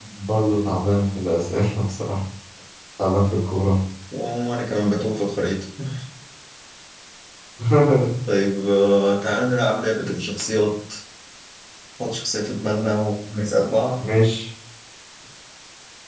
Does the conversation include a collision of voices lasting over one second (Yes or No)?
No